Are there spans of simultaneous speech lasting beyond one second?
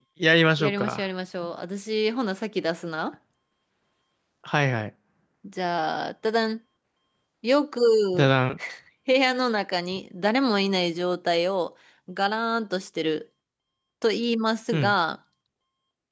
No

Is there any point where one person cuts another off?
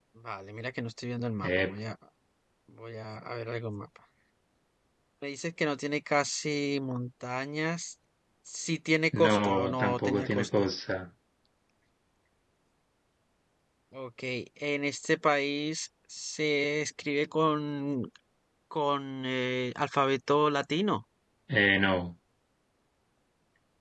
Yes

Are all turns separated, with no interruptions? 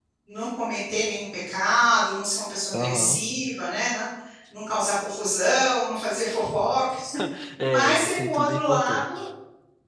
No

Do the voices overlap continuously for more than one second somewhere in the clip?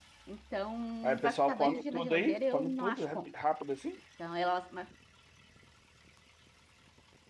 Yes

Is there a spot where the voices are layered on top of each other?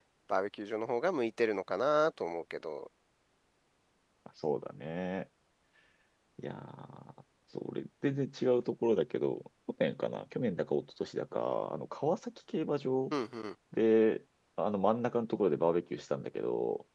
No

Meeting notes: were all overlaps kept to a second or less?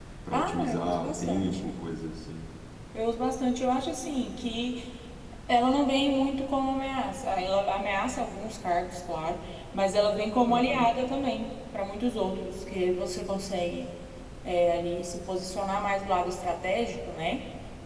No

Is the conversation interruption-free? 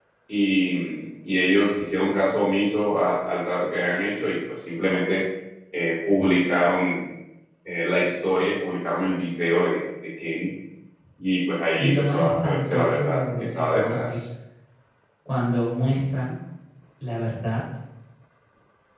No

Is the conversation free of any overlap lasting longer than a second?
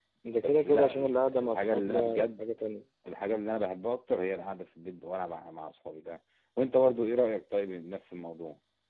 No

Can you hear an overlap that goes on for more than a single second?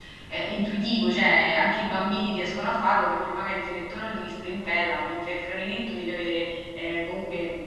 No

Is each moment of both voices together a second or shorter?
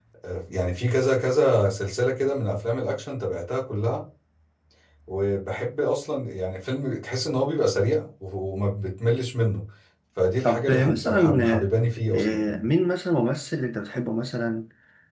No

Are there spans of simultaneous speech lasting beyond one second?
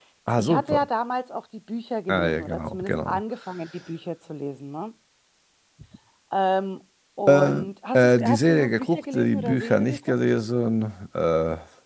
Yes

